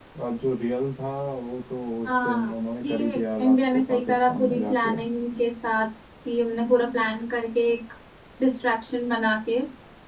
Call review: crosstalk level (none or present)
present